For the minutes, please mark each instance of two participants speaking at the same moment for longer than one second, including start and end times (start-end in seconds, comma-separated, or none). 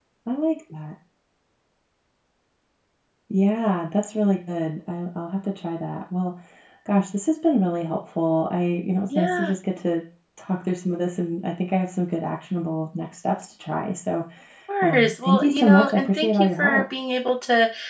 14.8-16.8